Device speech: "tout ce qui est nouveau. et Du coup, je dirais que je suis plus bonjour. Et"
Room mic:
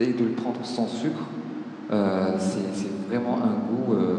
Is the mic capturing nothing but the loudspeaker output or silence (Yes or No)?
No